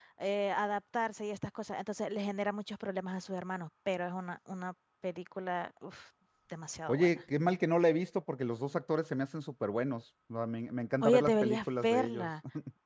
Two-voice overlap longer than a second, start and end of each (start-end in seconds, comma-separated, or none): 11.0-12.3